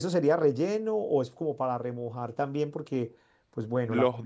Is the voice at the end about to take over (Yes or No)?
No